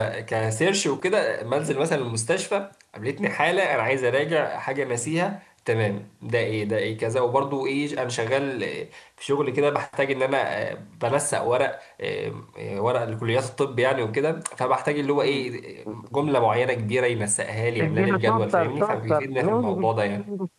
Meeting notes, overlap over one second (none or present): present